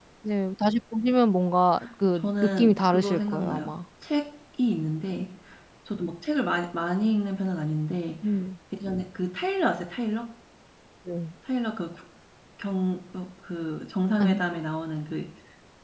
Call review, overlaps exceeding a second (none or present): present